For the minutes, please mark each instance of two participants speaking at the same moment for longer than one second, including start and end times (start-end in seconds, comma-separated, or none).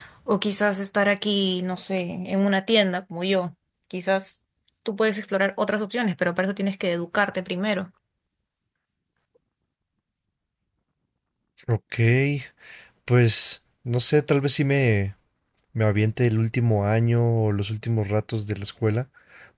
none